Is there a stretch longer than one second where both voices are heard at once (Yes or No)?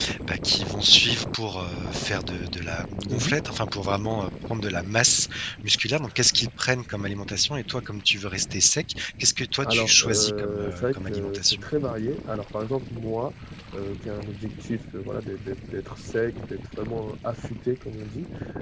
Yes